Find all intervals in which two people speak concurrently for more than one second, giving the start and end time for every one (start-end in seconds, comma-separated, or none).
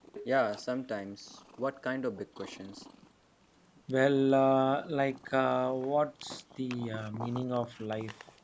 none